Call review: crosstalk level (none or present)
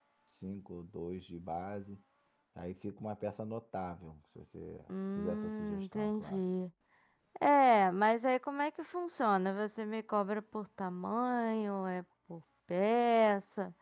present